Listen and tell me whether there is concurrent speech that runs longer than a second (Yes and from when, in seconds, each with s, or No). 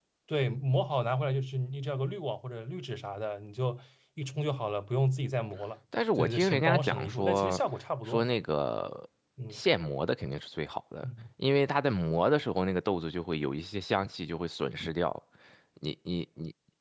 Yes, from 6.2 s